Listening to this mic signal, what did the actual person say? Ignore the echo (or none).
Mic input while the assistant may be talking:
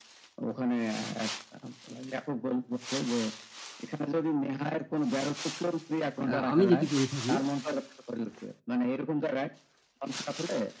আ আমি যেটি করে থাকি,